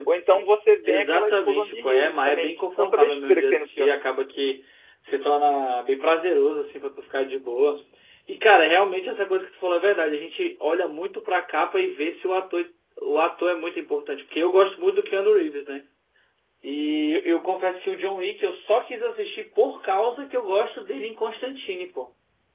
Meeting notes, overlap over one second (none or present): present